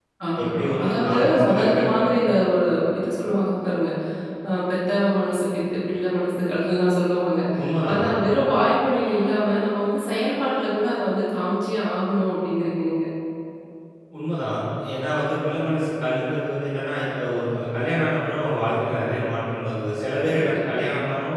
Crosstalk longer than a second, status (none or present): present